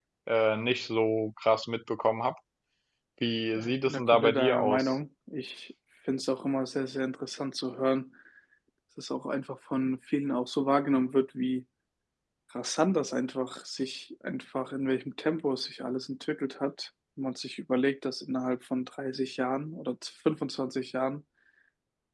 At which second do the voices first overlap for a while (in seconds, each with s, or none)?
3.5 s